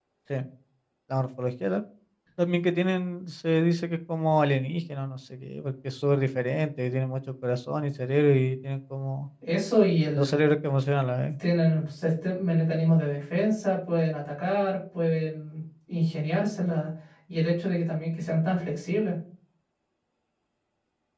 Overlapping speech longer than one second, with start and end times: none

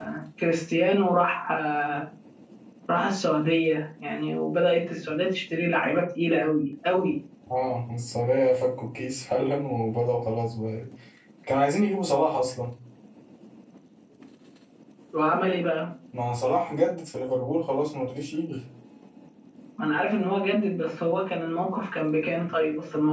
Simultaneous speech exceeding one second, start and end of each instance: none

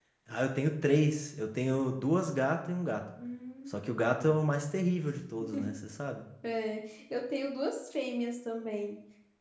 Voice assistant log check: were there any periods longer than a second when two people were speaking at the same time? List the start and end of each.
none

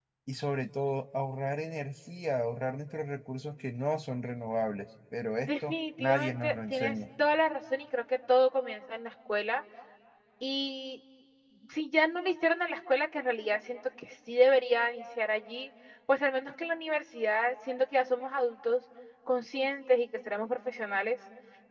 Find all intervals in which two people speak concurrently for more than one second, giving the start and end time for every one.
5.4-7.0

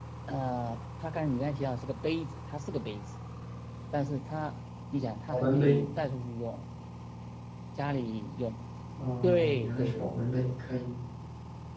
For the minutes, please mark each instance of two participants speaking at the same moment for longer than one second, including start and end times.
9.2-10.5

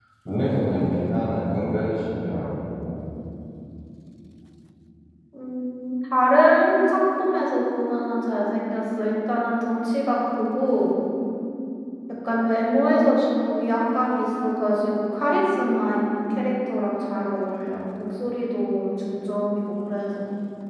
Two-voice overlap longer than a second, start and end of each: none

